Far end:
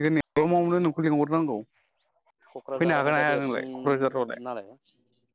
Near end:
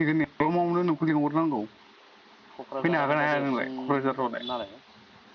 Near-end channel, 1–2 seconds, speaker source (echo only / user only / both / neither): echo only